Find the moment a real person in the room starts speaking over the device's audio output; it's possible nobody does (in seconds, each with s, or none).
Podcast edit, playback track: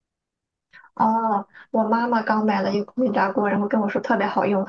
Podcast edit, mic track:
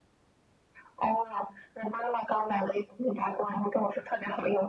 none